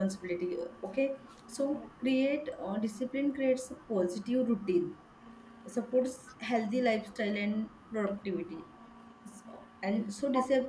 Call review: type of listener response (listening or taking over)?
listening